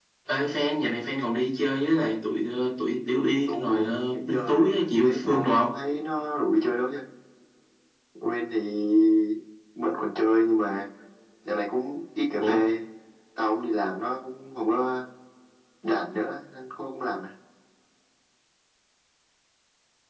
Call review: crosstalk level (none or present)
present